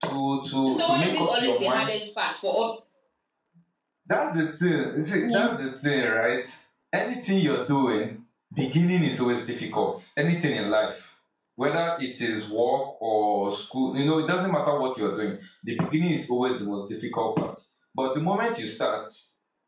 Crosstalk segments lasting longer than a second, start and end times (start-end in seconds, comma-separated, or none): 0.7-1.9